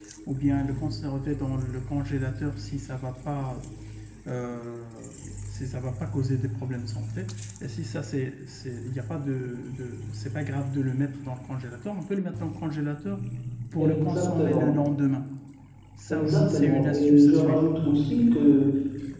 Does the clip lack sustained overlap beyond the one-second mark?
No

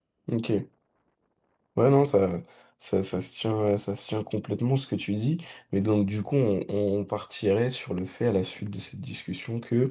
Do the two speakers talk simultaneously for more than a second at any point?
No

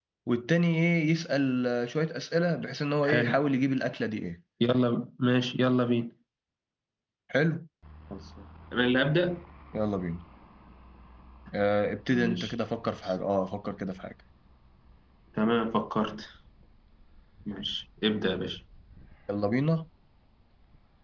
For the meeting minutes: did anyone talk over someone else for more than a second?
No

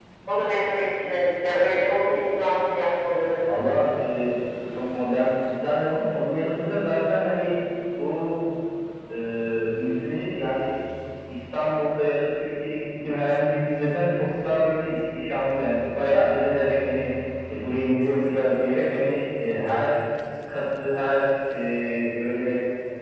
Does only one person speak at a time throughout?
Yes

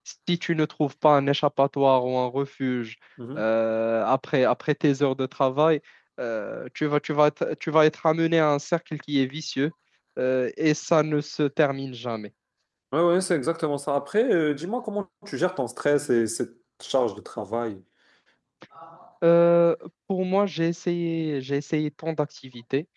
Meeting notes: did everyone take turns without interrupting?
Yes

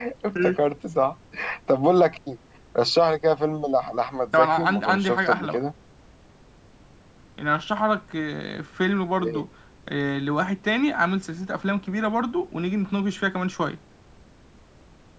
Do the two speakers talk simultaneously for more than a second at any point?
Yes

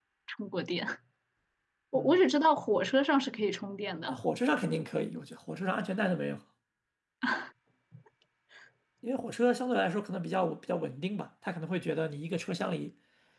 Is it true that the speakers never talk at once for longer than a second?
Yes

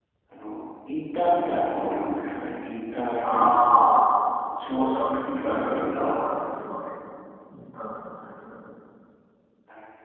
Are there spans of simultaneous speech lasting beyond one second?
Yes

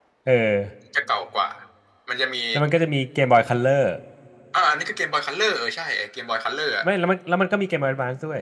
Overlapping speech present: No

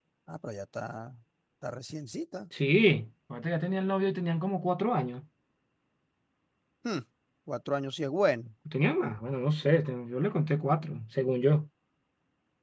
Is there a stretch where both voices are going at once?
No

